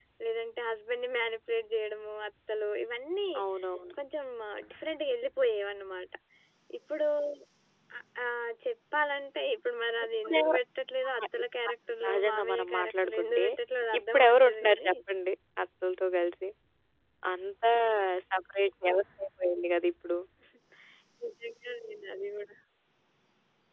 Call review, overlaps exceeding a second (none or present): present